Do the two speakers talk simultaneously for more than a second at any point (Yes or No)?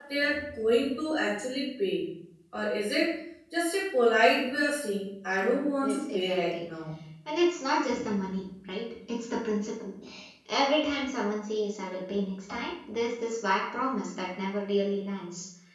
Yes